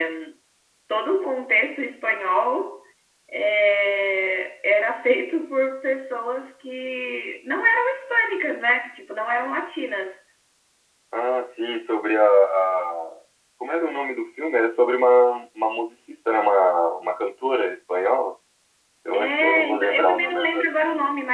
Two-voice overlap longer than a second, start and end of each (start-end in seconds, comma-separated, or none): 19.1-20.6